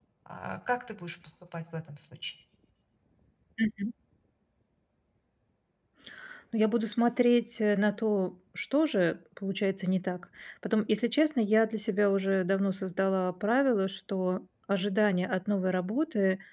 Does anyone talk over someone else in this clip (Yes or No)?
No